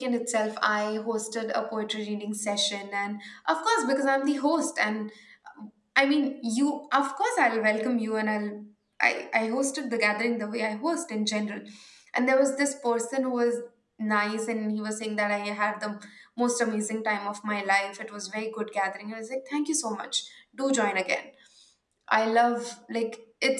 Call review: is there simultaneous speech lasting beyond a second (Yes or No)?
No